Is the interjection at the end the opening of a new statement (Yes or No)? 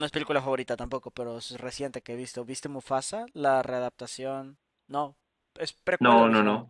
Yes